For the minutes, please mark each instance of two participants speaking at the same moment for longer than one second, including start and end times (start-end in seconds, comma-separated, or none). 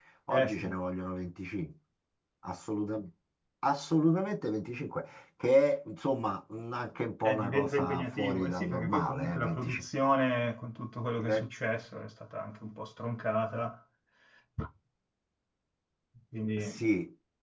7.2-9.8